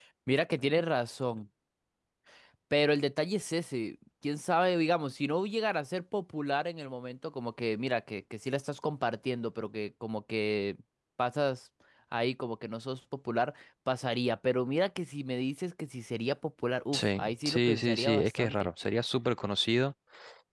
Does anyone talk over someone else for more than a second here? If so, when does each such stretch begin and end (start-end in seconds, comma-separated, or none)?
16.9-18.7